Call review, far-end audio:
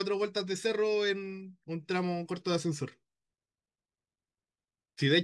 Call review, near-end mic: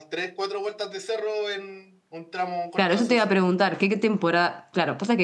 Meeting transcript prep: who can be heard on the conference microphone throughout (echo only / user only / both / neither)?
both